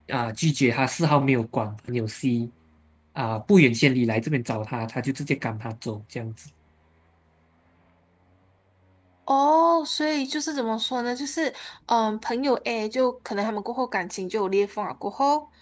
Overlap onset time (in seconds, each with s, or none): none